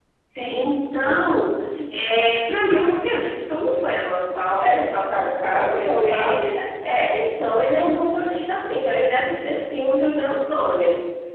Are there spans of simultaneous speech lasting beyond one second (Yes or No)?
Yes